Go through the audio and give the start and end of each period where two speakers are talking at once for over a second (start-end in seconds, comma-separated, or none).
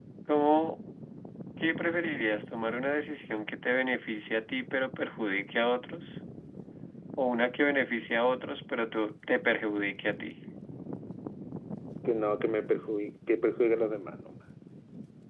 none